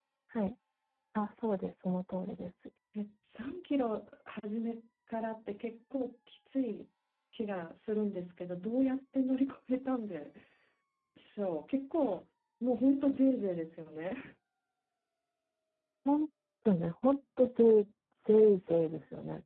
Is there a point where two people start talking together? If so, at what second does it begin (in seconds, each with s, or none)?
none